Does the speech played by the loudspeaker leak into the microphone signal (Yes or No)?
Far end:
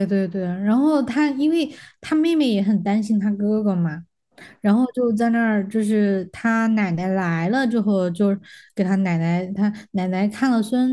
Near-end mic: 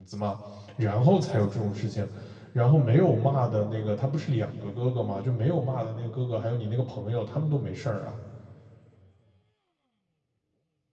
No